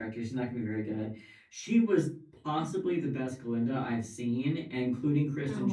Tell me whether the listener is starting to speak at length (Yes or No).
No